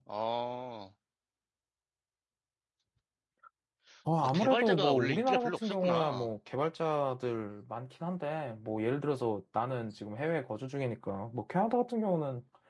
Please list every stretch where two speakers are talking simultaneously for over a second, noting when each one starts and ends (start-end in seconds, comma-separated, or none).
4.2-6.3